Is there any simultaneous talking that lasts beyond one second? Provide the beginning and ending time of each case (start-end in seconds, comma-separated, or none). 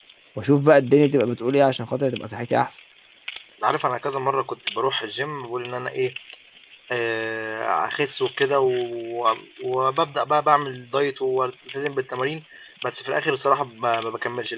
none